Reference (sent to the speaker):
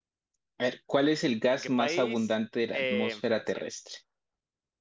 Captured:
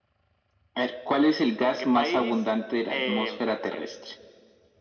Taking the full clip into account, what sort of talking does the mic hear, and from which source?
echo only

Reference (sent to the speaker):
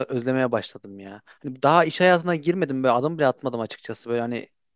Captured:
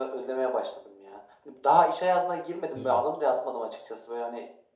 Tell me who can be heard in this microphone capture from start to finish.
both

